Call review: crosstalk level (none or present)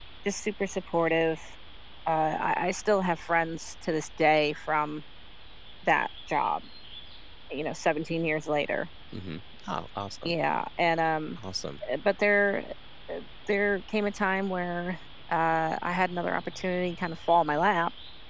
none